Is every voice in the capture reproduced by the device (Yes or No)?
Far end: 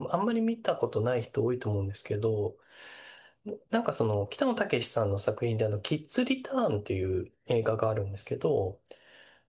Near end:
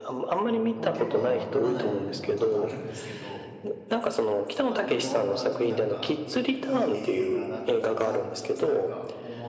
No